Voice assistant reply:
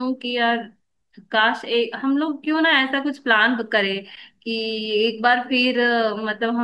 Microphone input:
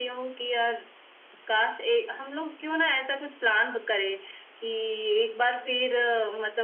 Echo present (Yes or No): Yes